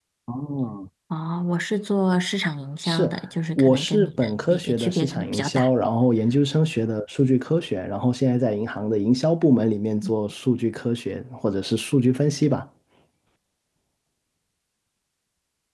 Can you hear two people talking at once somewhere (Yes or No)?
Yes